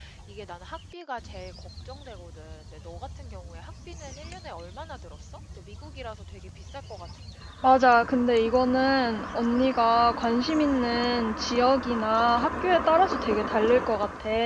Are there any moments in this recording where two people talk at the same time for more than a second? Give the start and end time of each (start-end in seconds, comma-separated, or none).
none